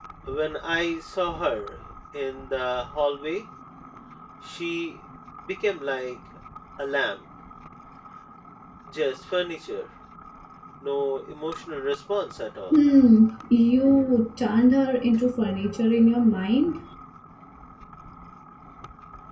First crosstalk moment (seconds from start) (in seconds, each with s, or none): none